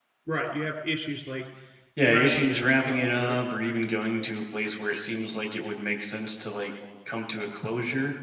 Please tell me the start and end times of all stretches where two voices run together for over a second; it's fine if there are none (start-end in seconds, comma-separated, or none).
2.0-3.4